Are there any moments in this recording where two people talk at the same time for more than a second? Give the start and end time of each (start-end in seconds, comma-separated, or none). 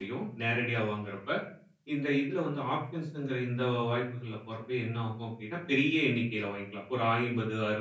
none